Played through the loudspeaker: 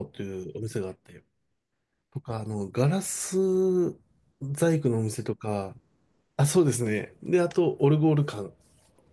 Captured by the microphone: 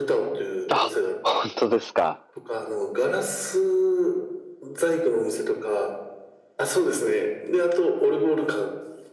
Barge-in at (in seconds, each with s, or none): 0.7 s